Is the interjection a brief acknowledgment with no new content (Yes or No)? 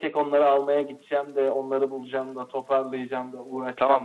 No